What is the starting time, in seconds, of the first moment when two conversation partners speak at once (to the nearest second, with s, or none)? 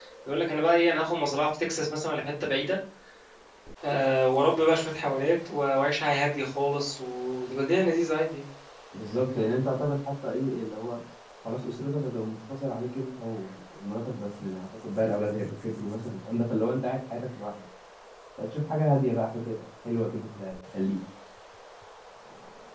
none